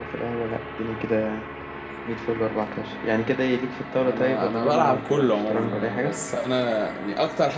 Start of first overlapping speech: 4 s

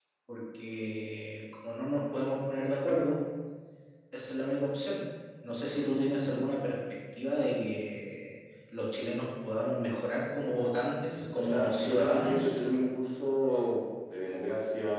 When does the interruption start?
11 s

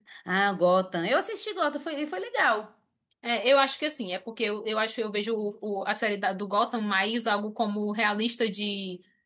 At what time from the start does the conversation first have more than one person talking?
none

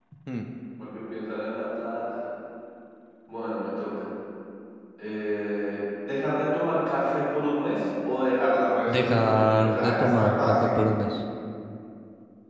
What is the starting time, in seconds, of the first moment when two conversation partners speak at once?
9 s

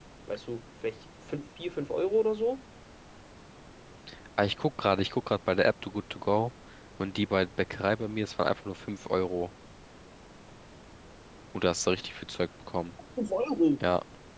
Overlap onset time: none

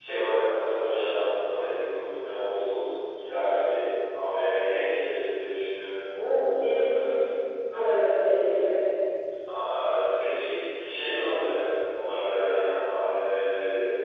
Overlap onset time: none

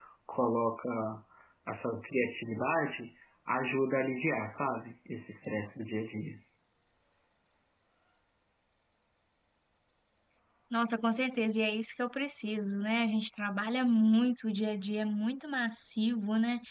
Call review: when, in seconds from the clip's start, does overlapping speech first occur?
none

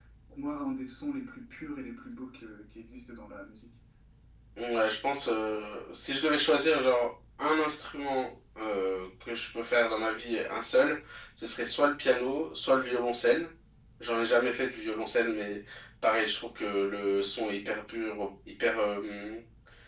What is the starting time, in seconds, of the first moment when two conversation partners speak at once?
none

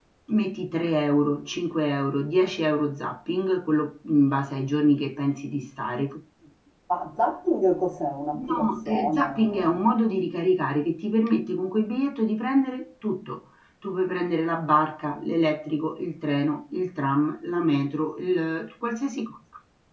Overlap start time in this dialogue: 8 s

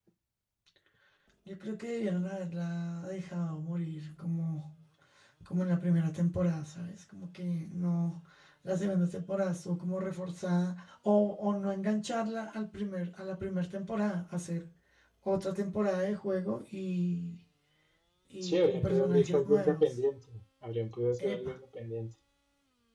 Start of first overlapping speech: 18 s

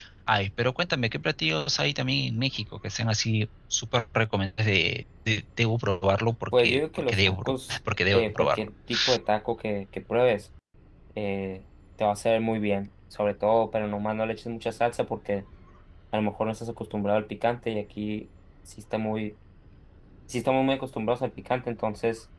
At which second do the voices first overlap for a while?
7 s

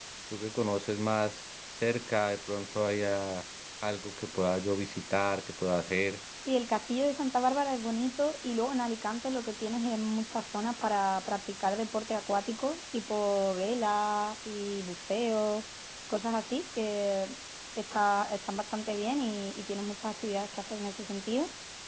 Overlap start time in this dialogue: none

